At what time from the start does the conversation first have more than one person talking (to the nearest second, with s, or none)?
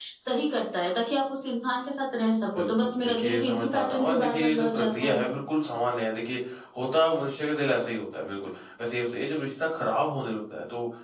3 s